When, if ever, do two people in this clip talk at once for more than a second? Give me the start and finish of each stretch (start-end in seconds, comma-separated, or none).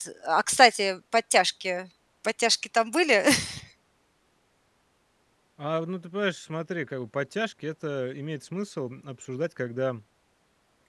none